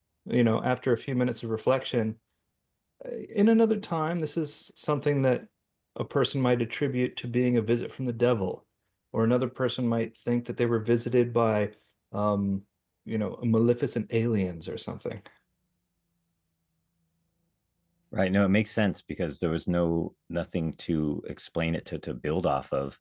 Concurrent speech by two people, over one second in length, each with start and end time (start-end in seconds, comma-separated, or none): none